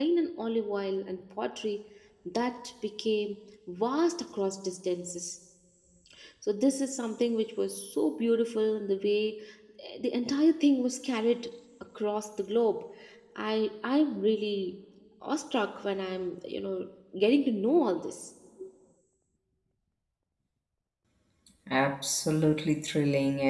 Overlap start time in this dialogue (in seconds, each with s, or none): none